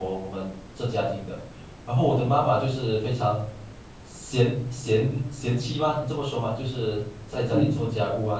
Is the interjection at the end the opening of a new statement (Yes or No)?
No